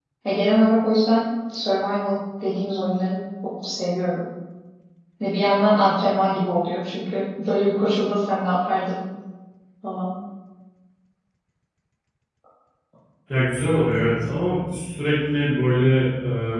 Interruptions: none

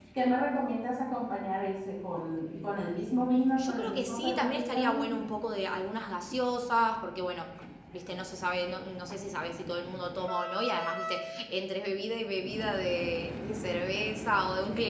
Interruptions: present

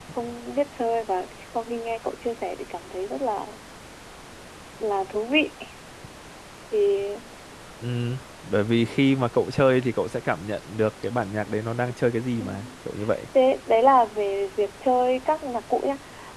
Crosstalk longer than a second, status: none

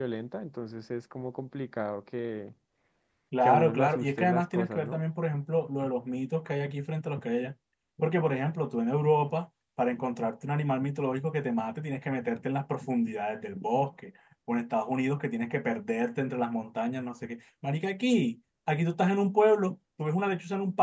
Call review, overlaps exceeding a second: present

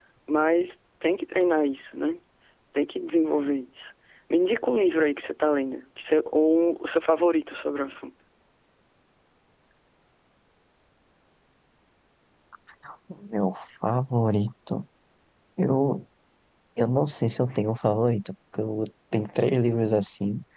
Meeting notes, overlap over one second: none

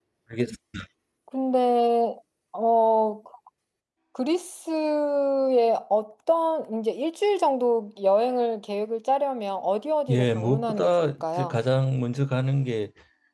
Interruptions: present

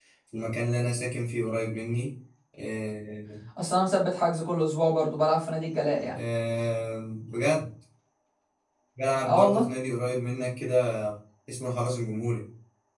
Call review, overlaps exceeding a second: none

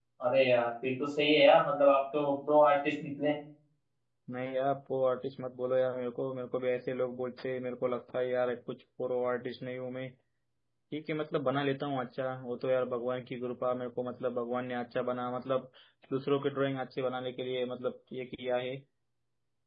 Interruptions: none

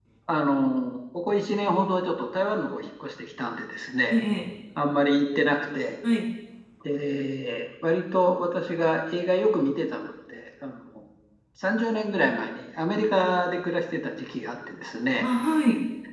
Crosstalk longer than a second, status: none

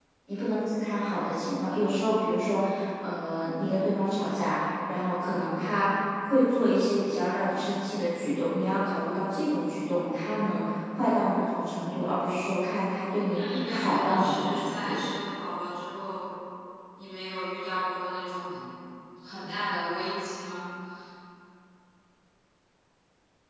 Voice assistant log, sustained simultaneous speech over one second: present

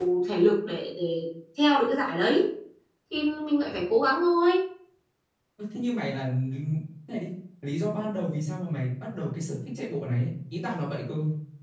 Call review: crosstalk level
none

